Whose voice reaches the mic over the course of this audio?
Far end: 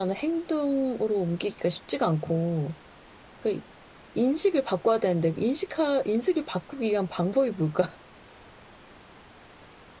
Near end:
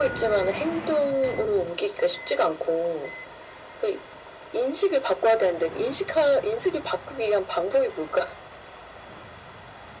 echo only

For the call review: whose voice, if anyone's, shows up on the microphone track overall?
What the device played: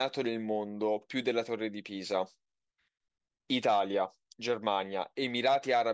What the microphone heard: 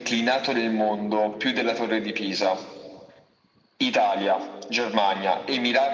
echo only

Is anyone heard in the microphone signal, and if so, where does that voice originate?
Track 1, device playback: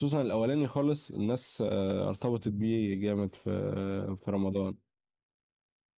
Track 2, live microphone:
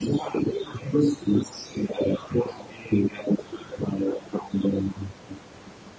echo only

